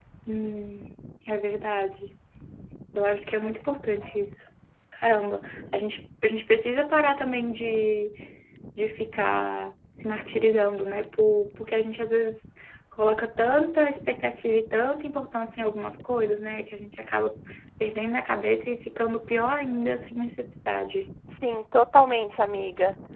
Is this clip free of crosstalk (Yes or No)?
Yes